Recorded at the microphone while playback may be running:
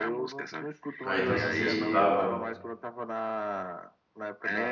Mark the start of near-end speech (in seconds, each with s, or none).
1.0 s